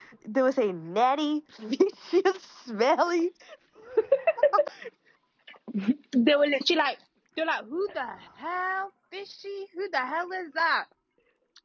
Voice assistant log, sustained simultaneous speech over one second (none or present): none